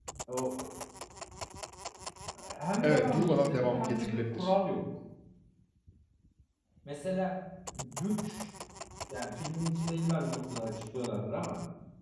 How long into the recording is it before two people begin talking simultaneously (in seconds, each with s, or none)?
2.8 s